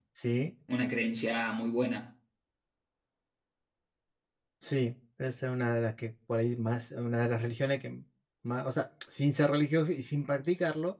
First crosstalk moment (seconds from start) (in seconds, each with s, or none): none